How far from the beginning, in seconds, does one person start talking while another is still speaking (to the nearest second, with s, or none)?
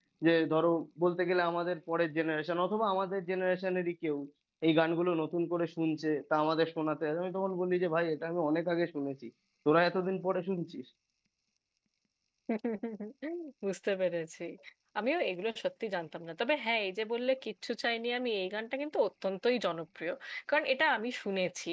none